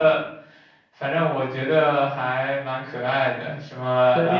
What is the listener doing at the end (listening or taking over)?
taking over